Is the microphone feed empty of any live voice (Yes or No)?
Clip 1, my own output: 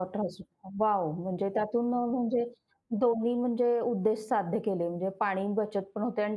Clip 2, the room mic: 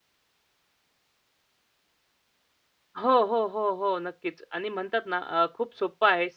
No